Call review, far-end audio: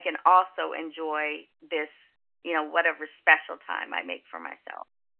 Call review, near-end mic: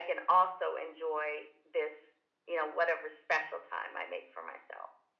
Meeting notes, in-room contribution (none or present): none